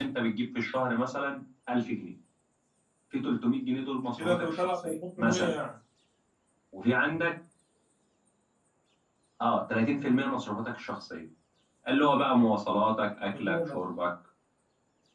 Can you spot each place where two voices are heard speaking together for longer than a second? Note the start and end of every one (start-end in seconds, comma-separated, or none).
4.2-5.5